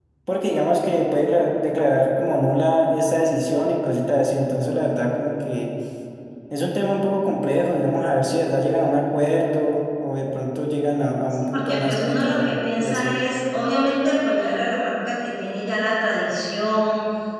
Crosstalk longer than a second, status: present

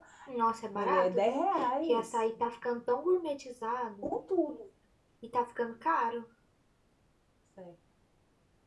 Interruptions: present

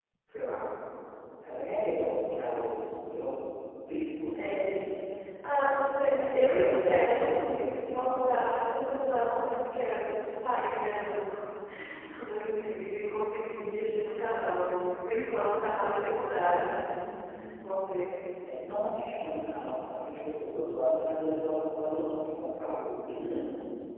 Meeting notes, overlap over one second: present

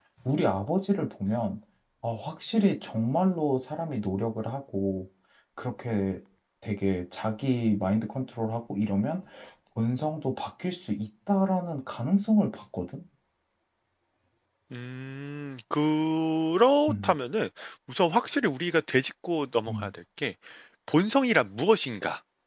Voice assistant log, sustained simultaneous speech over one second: none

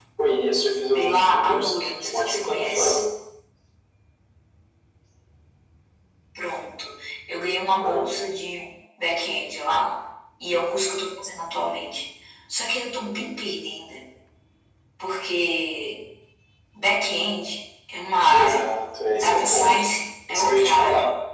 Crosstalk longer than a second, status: present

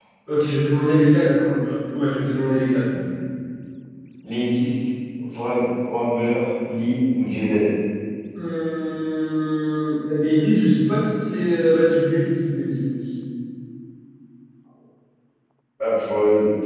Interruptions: none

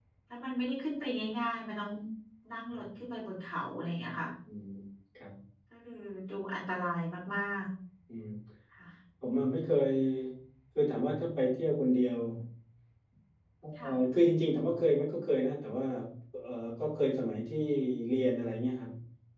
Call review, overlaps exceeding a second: none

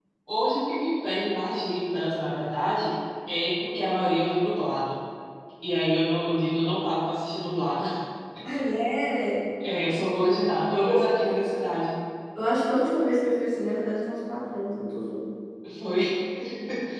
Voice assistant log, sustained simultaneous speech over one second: none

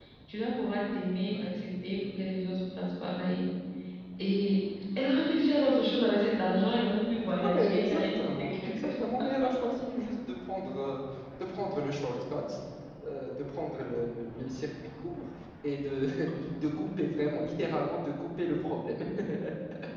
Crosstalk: present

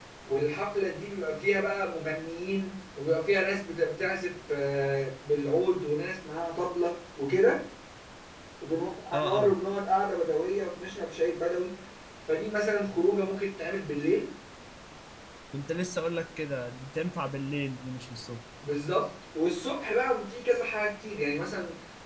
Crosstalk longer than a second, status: none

